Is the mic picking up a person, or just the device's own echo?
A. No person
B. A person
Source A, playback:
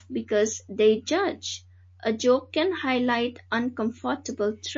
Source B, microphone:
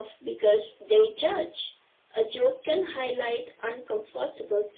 A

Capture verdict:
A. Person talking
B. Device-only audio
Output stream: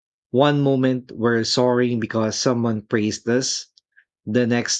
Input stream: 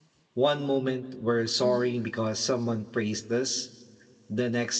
A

